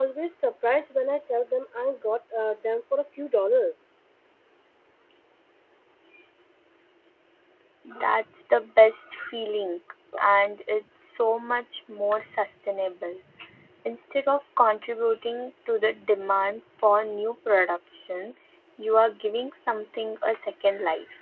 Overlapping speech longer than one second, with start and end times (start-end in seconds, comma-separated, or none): none